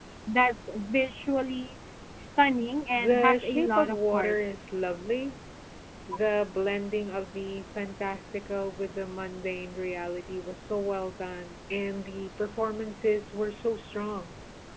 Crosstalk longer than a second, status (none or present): present